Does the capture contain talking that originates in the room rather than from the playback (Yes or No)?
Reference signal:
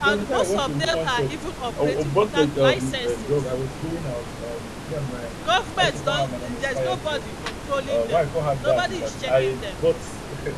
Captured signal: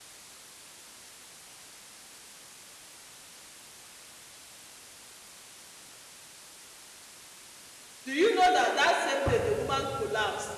Yes